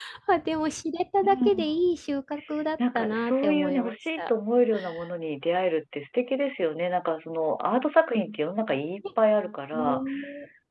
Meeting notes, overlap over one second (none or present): present